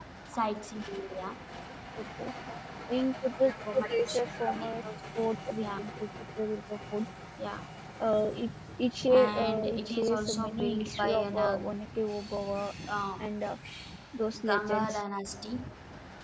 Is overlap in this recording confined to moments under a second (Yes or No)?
No